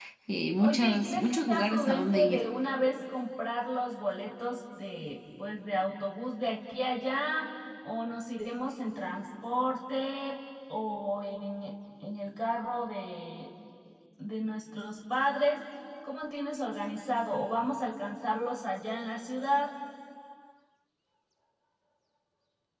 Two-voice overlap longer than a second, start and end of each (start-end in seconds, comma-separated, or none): 0.6-2.4